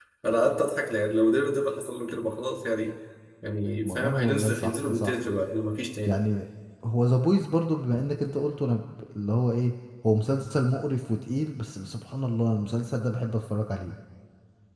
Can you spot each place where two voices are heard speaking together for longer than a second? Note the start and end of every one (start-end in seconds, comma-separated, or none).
3.8-5.1